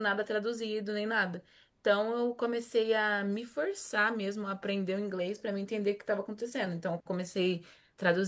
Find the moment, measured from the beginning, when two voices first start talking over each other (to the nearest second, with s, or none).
none